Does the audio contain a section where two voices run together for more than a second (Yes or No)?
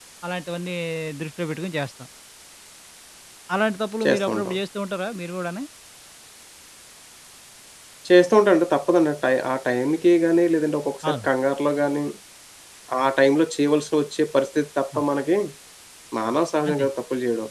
No